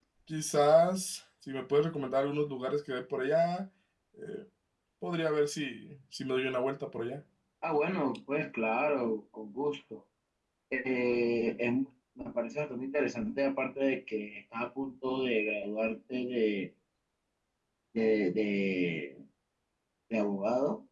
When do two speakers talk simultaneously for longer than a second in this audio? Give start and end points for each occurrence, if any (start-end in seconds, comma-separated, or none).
none